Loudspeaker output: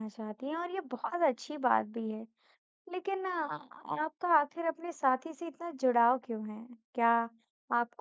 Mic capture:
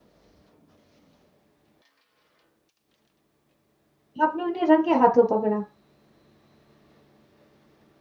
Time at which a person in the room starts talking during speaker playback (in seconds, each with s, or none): 4.2 s